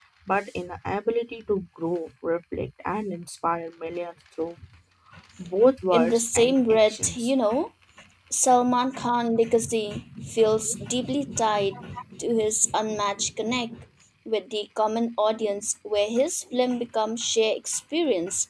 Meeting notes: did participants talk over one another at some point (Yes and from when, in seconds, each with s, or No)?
Yes, from 5.9 s